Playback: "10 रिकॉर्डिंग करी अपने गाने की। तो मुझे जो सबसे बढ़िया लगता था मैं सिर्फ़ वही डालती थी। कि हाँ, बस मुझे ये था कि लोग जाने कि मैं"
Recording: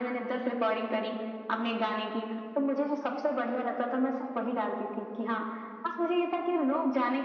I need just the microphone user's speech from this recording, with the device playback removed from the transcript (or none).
none